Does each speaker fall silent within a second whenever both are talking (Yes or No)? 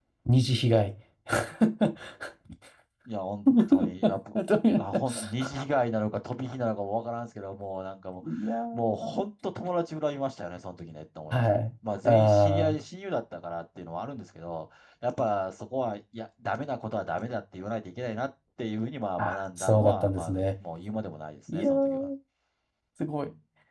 No